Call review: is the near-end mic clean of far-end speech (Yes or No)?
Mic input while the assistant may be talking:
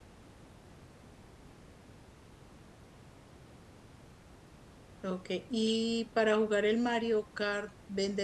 Yes